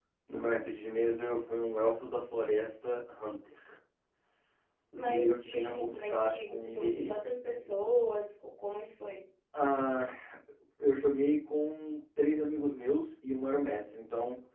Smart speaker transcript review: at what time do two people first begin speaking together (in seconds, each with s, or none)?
5.0 s